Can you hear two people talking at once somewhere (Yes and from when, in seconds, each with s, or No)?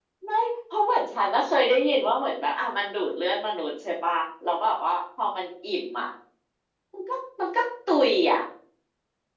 No